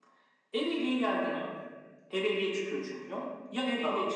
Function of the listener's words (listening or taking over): listening